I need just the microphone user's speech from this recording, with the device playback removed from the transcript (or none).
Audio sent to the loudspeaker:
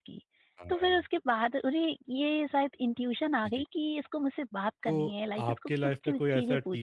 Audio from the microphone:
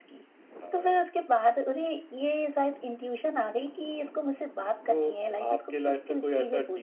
none